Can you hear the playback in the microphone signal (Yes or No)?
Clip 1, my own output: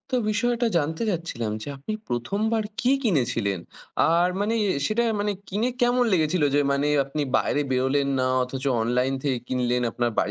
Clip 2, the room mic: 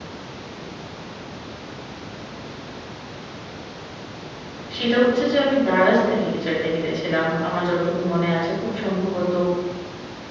No